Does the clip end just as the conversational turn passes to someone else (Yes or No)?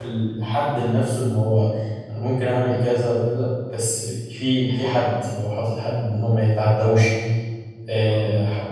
No